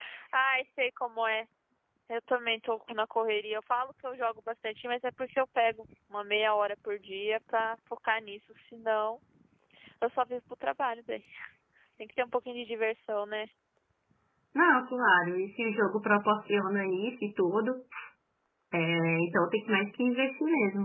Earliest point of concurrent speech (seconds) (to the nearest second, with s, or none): none